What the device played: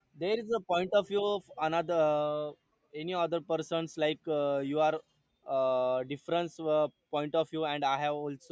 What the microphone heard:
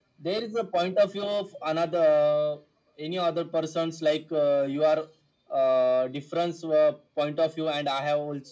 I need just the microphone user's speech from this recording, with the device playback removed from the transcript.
none

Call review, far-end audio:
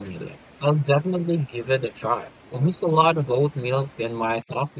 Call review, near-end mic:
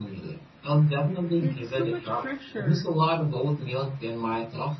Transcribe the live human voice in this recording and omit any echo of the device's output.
It's so much fresher.

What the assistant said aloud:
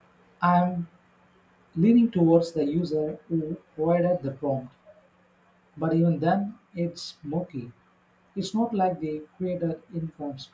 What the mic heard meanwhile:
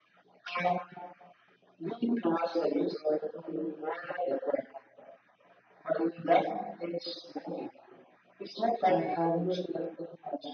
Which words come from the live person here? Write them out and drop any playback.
I hadn't

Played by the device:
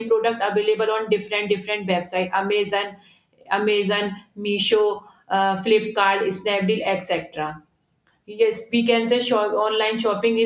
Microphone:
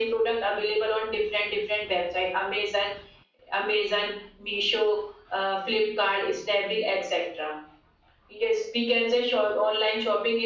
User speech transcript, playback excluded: none

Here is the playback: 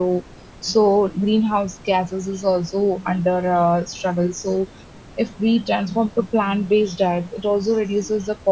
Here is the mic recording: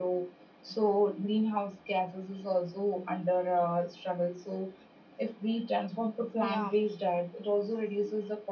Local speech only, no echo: yeah.

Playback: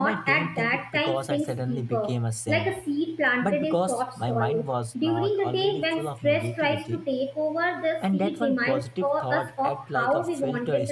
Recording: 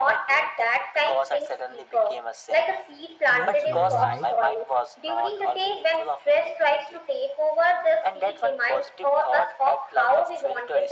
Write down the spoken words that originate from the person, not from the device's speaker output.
Yes, you are right.

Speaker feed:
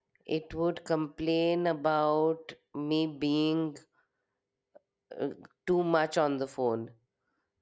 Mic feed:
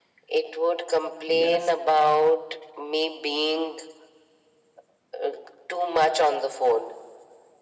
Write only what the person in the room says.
Yes.

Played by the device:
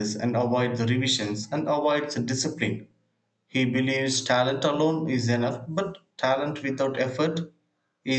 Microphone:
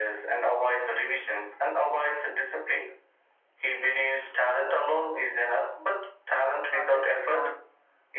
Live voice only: hardest part

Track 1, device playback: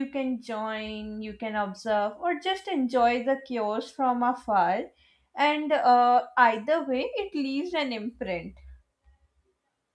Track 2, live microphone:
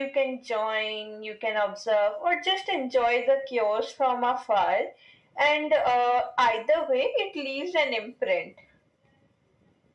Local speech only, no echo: none

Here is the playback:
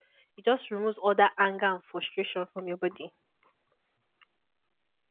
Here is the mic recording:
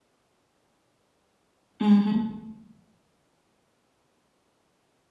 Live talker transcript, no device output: Mm-hmm.

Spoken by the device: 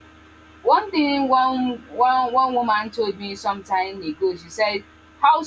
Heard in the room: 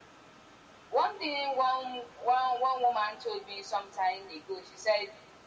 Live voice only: none

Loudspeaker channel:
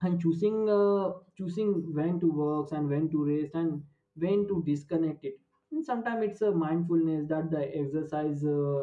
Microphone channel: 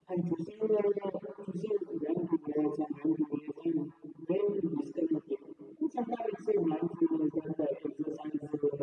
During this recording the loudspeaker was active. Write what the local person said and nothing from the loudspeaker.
none

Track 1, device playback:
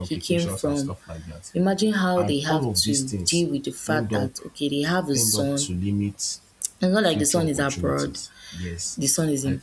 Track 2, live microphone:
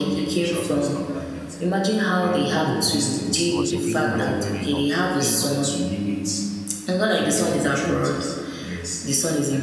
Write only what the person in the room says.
He was imprisoned at a very young age

